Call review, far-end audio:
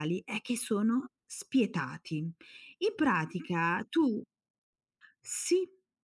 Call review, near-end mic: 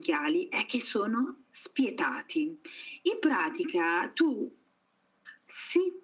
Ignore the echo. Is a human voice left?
No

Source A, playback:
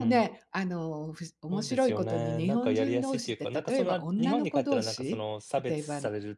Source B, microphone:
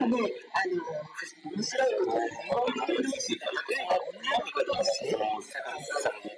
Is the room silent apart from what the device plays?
Yes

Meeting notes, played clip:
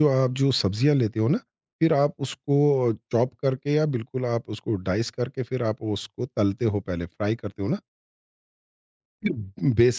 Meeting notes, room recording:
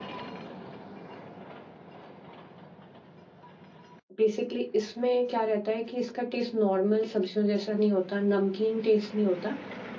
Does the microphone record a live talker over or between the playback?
Yes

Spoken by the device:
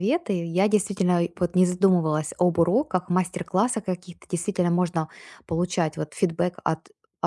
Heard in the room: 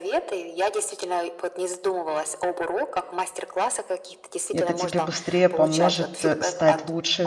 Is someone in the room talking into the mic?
Yes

